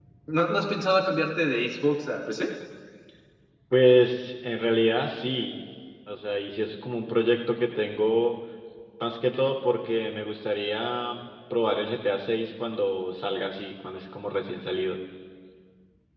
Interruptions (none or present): none